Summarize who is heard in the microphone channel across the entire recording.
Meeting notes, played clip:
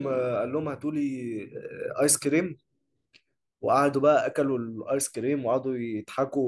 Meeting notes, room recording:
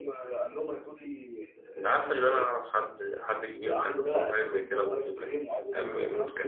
both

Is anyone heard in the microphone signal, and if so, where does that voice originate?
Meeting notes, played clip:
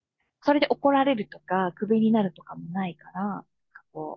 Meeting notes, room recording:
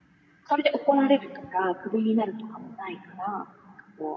both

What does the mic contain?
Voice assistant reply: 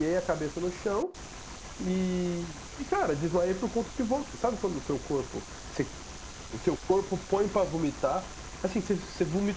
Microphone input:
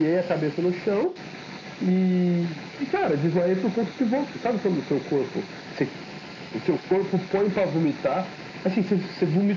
echo only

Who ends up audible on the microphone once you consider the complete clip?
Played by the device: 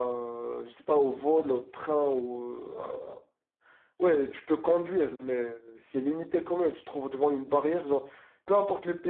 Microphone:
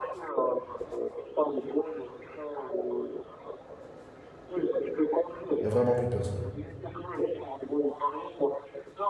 both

